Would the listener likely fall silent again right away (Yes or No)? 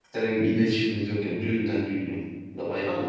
No